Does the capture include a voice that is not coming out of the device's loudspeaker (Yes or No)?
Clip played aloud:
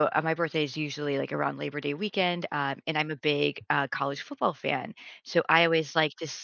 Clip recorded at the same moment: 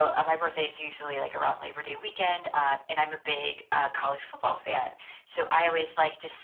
No